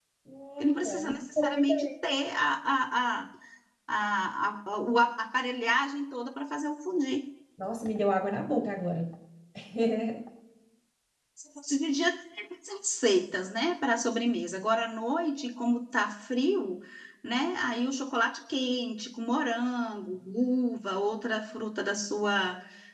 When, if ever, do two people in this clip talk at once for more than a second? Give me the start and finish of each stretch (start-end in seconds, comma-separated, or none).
0.6-1.9